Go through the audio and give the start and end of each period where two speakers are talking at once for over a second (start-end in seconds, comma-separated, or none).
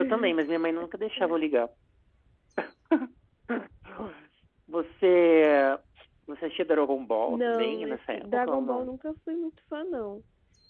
7.3-8.9